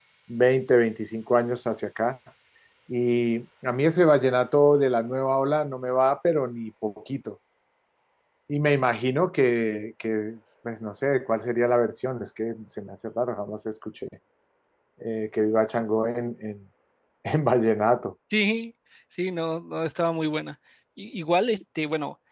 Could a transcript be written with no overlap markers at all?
Yes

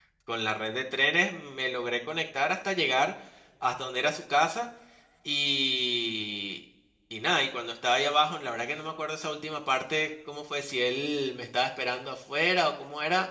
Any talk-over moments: No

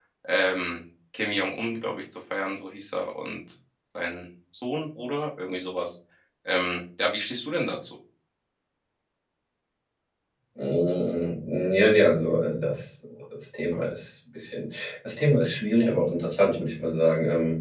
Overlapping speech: No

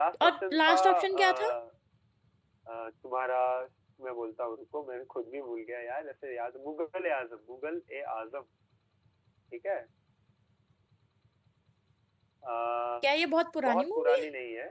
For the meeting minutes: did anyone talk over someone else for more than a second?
Yes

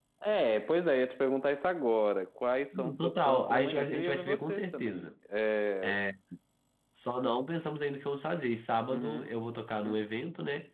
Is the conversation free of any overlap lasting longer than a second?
No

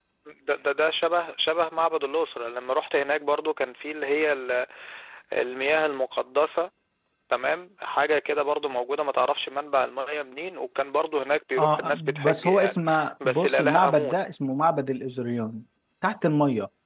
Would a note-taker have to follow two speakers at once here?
Yes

